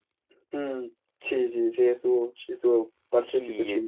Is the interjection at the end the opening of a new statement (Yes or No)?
Yes